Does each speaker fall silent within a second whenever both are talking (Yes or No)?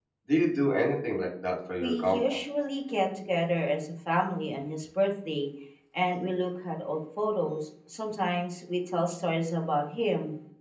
Yes